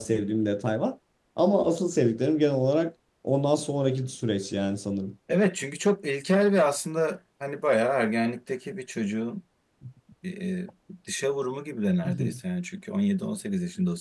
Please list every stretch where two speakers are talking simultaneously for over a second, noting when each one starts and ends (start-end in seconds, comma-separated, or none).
none